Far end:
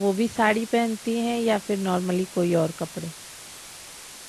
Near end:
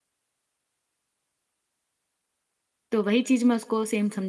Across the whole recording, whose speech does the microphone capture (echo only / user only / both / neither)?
user only